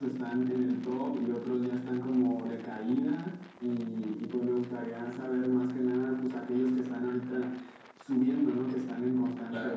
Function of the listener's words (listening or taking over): listening